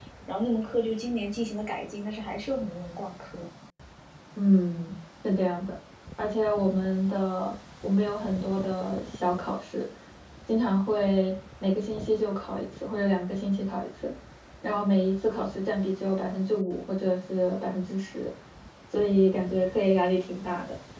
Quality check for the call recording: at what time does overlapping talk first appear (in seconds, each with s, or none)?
none